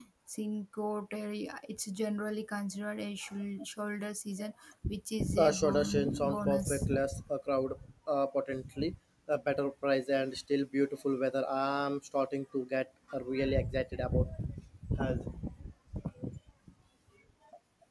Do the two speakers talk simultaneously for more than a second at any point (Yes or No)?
Yes